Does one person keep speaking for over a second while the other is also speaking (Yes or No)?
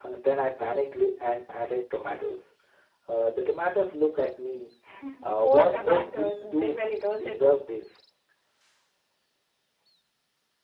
Yes